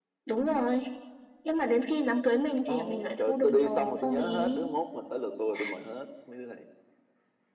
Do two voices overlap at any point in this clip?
Yes, from 2.7 s

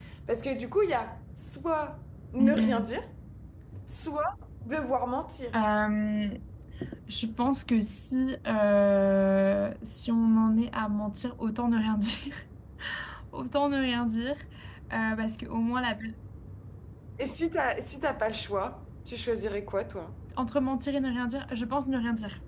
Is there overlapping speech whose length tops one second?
No

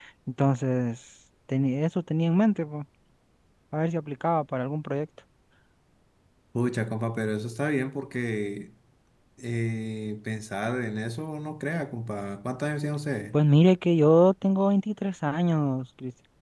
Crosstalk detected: No

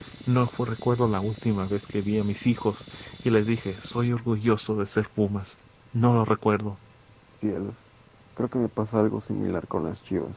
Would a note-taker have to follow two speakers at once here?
No

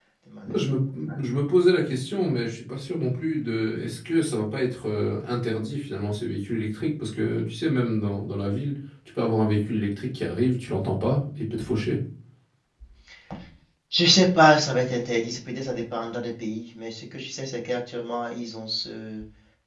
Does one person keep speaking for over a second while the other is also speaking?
No

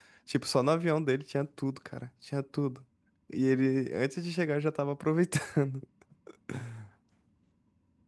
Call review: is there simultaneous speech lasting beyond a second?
No

